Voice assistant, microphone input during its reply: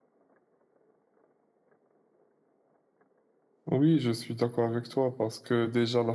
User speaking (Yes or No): Yes